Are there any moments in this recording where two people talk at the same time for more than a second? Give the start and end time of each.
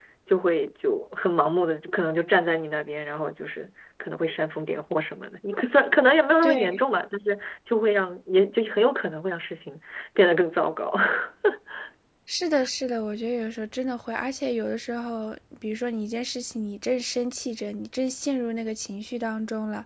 none

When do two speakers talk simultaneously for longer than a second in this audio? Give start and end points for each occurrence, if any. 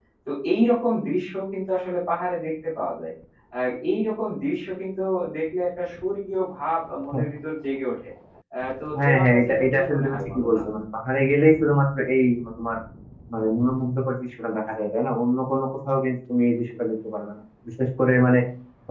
9.0-10.6

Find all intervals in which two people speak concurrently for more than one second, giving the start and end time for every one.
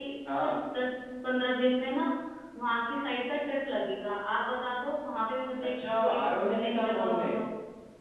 5.8-7.2

